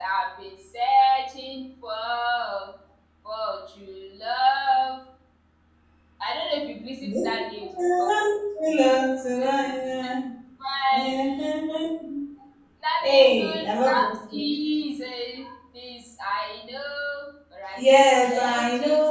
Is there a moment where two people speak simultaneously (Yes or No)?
Yes